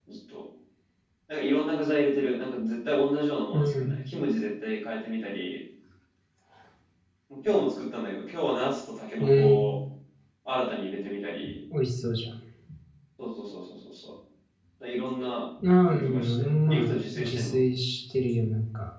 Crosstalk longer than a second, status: present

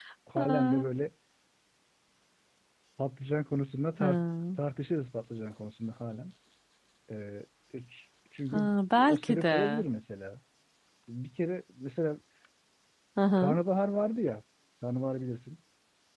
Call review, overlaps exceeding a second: present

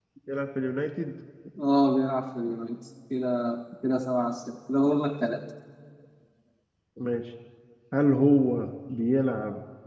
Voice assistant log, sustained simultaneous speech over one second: none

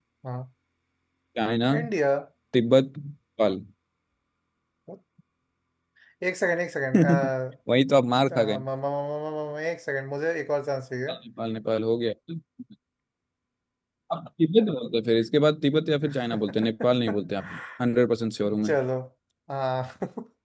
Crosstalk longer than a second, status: none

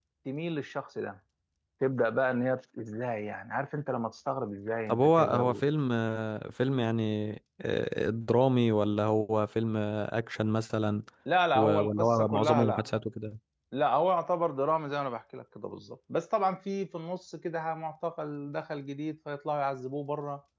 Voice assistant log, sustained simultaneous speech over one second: present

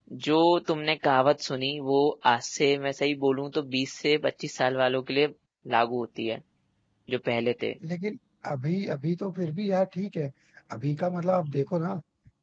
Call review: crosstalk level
none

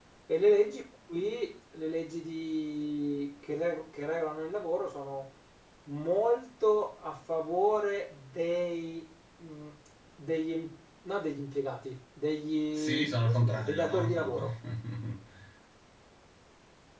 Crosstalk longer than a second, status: present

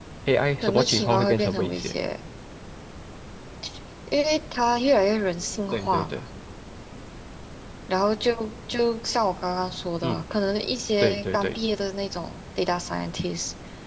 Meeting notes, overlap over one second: present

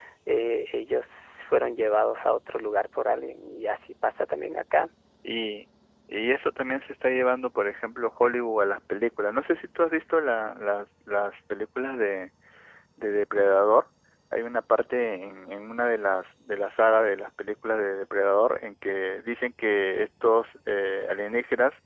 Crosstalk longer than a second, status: none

